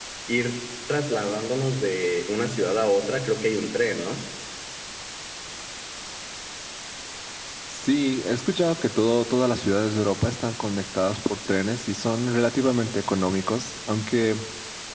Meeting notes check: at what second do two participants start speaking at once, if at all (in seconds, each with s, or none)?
none